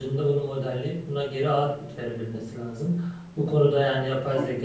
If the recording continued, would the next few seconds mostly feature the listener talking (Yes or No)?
No